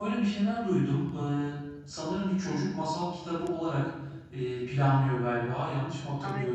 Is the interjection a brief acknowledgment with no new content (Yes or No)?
No